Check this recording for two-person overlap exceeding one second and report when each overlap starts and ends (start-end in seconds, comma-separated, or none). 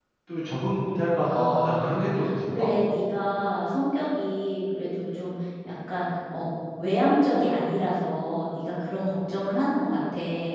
1.2-2.7